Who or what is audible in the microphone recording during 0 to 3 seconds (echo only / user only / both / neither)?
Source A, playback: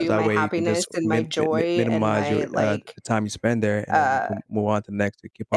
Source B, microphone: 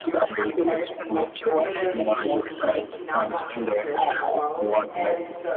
both